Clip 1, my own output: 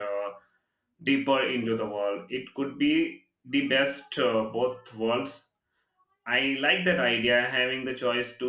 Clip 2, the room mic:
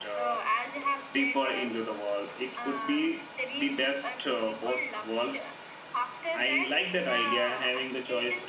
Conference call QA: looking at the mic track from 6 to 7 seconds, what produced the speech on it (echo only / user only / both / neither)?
both